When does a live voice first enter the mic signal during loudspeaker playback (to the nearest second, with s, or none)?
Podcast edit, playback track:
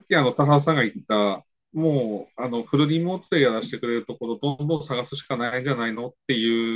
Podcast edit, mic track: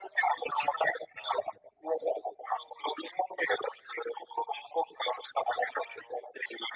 none